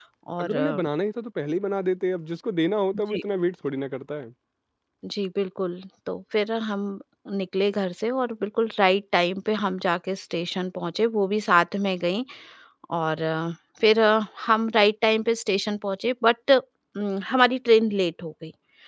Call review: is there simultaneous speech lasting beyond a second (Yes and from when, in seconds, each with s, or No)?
No